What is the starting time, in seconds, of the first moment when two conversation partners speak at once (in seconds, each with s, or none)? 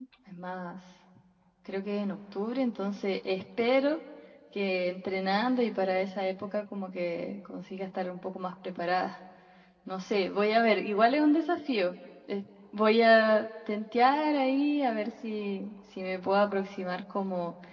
none